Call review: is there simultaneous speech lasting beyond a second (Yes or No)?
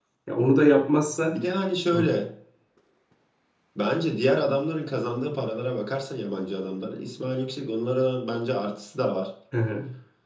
No